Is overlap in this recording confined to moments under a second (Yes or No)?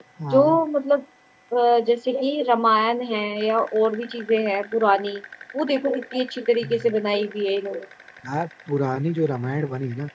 Yes